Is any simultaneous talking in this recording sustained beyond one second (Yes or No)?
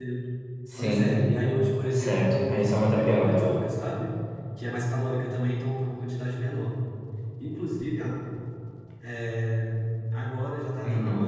Yes